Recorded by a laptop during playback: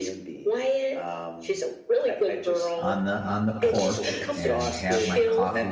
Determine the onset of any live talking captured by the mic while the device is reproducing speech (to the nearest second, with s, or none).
3 s